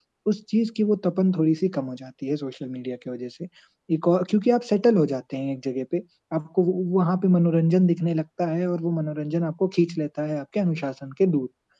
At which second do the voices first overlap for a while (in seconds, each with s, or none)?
none